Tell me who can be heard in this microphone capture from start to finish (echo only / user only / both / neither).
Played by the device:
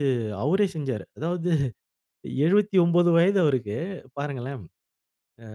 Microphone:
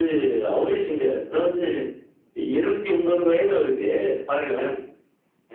echo only